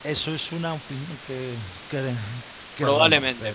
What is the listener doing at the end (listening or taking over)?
taking over